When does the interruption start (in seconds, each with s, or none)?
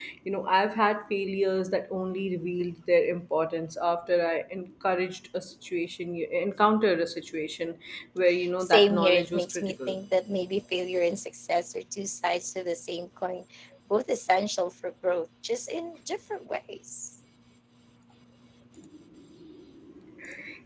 8.6 s